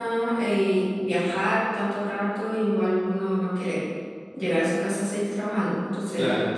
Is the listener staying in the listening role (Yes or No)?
Yes